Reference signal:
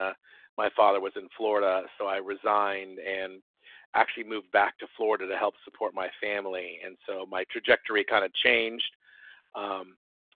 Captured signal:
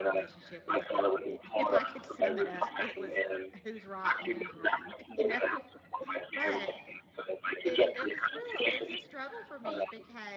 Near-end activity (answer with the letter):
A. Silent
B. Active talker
B